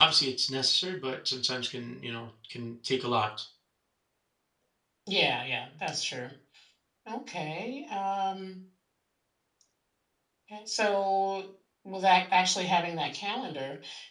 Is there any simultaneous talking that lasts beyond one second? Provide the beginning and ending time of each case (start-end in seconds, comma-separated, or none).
none